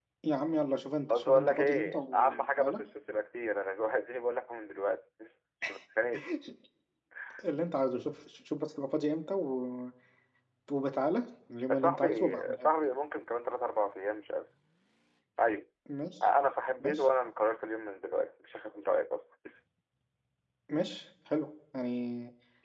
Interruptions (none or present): present